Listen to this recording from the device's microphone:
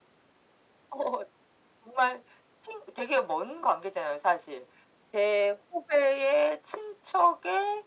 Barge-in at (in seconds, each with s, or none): none